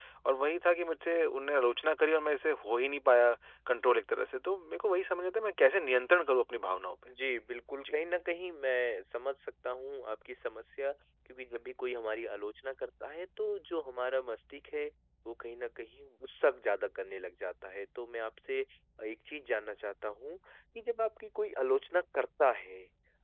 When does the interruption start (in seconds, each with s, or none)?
none